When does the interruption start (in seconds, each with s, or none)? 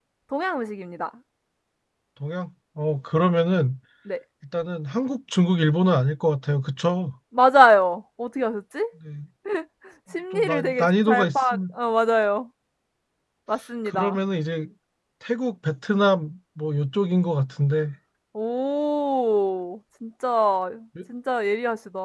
10.3 s